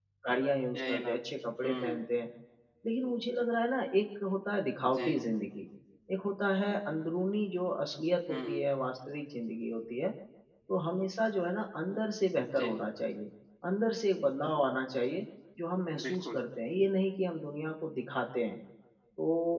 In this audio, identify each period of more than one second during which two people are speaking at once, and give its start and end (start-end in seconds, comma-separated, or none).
none